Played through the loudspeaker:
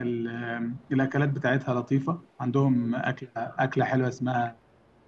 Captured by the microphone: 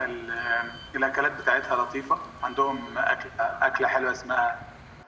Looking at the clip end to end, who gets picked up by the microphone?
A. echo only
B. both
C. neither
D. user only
A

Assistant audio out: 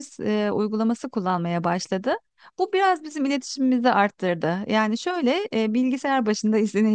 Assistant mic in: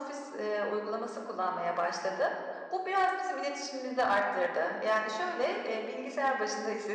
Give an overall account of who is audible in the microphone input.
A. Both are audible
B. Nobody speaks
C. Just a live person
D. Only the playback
D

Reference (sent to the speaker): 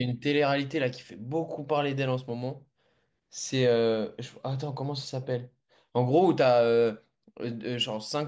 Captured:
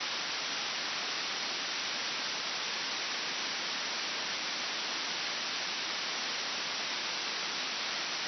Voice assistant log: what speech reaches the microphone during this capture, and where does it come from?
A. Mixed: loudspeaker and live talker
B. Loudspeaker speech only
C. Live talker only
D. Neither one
D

